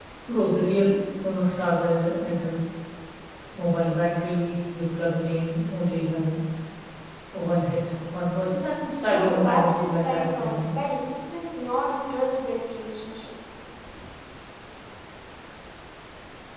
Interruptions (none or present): present